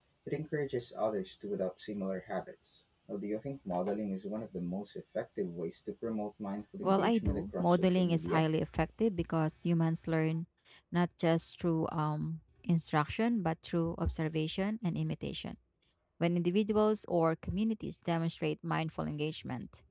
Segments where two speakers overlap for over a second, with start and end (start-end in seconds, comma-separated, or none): 6.8-8.4